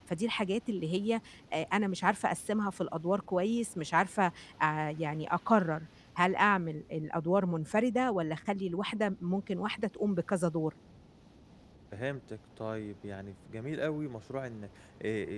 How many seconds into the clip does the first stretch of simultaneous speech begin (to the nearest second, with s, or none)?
none